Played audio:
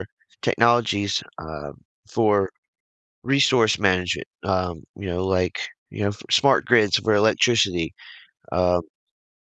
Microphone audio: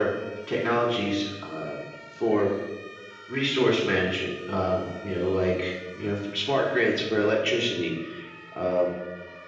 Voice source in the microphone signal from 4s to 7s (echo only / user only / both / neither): echo only